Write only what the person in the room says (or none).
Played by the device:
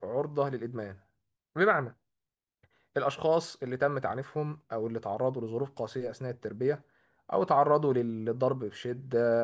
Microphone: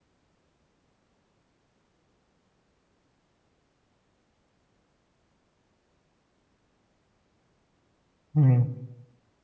مم.